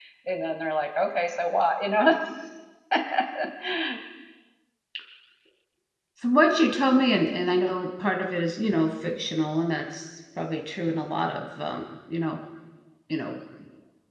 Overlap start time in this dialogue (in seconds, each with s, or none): none